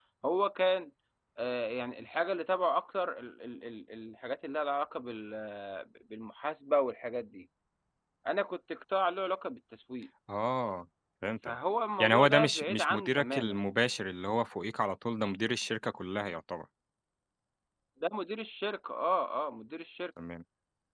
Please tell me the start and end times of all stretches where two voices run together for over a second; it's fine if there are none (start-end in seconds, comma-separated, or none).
12.0-13.6